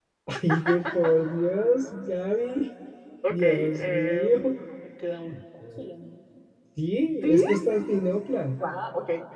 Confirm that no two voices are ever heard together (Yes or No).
No